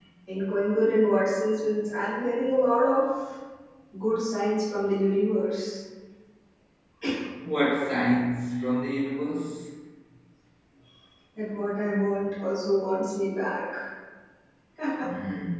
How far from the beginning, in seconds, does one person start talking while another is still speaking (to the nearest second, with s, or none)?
none